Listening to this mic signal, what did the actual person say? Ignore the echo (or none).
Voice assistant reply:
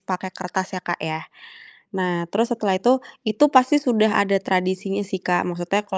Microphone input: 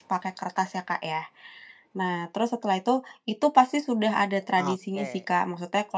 Oke.